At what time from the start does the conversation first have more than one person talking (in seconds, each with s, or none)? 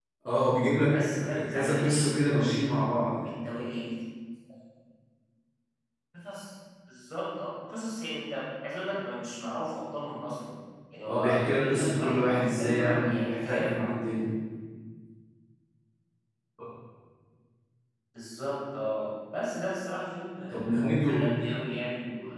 0.9 s